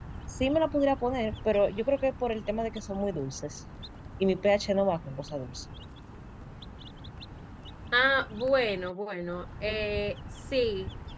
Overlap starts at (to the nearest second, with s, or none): none